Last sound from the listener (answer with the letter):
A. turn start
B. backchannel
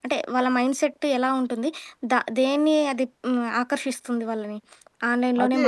A